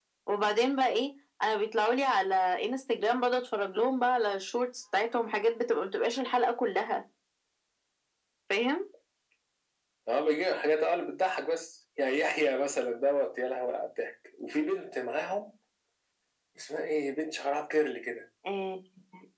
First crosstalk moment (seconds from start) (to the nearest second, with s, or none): none